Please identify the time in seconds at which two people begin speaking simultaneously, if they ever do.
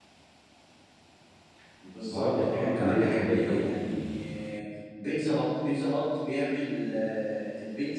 2.1 s

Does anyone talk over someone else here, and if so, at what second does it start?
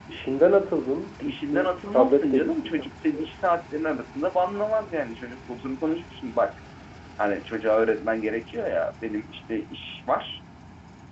1.2 s

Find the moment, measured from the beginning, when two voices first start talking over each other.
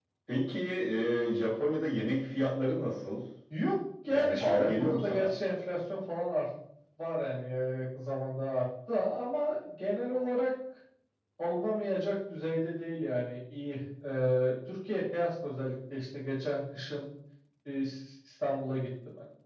4.1 s

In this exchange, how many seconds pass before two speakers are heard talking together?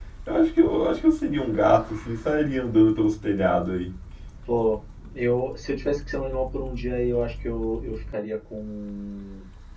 none

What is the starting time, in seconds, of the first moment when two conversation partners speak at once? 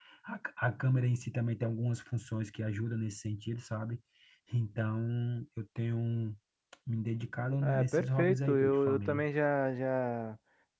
7.6 s

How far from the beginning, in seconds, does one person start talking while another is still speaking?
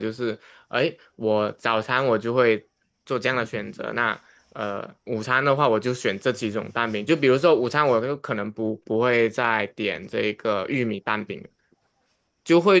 none

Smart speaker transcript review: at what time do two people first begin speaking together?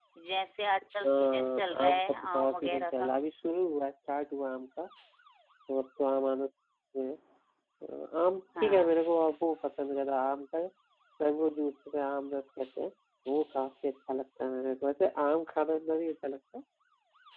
1.0 s

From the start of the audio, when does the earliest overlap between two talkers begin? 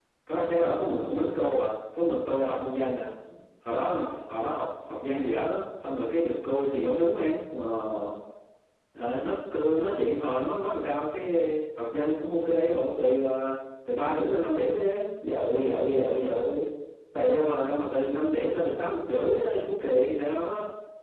none

